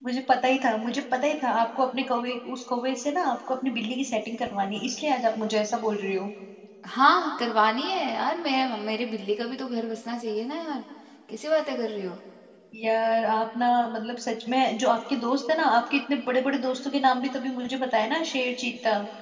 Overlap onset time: none

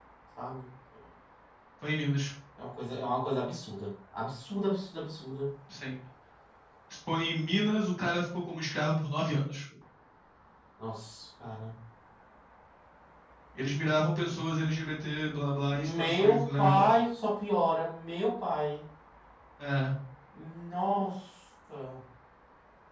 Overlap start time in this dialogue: 15.7 s

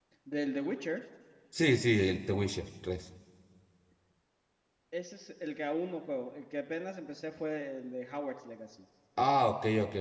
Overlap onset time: none

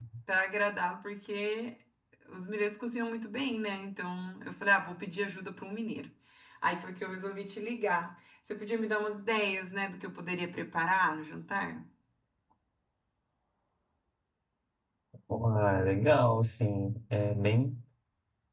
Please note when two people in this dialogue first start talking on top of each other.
none

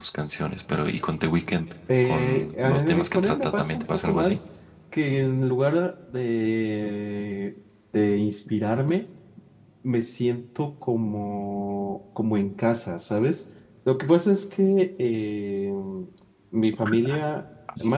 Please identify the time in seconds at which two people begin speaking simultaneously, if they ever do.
2.0 s

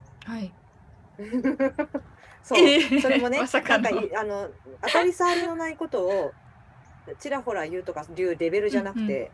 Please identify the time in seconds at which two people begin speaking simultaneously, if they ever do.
2.5 s

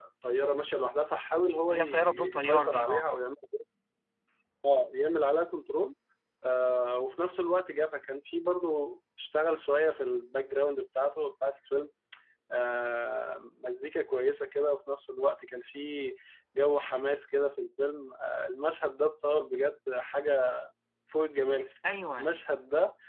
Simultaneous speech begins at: 1.7 s

